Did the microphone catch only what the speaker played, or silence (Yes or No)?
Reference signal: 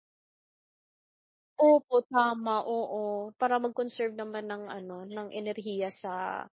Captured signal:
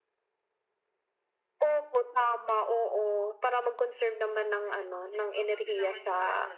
No